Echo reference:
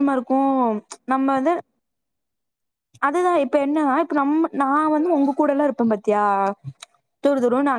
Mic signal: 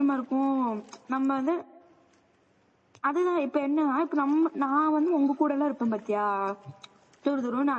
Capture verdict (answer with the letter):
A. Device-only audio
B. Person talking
A